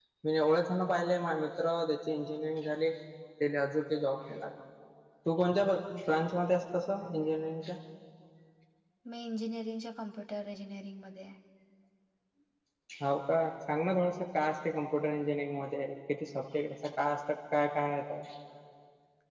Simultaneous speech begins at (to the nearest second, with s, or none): none